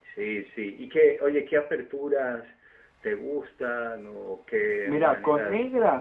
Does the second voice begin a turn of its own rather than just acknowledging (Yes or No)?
Yes